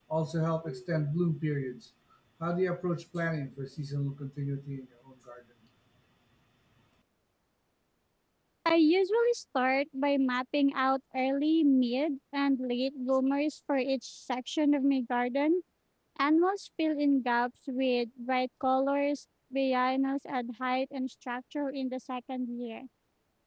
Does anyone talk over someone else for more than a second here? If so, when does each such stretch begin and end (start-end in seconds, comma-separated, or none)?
none